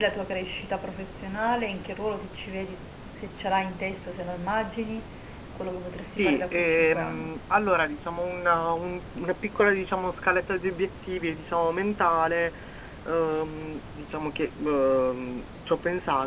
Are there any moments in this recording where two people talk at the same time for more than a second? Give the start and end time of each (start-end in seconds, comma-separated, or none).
6.0-7.3